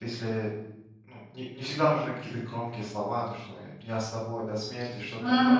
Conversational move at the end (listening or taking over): listening